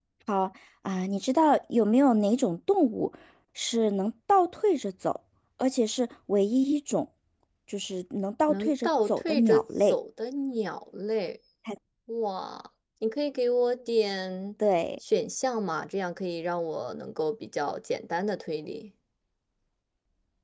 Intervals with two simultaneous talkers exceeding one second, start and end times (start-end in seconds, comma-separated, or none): 8.5-10.0